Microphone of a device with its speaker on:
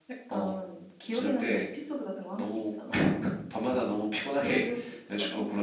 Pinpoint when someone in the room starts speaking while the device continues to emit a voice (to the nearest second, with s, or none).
none